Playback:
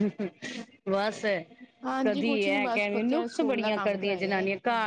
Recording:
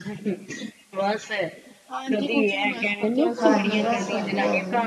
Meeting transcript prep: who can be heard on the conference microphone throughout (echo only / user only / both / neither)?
both